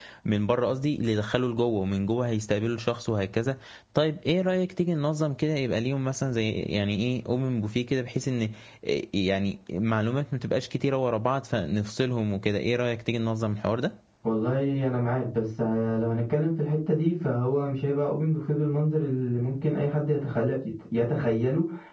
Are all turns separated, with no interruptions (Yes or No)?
Yes